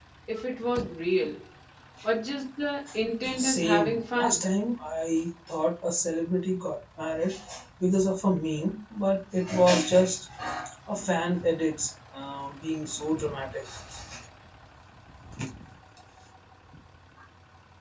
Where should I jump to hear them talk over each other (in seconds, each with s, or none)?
3.2 s